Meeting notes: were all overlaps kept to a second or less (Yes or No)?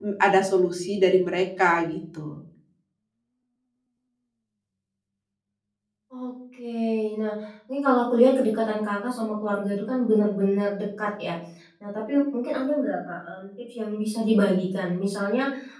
Yes